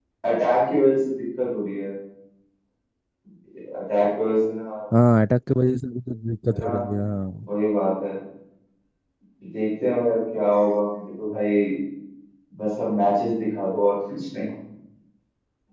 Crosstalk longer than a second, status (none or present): none